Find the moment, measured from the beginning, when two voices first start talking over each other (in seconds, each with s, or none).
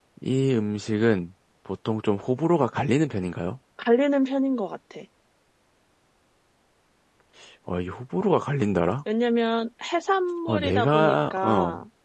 10.5 s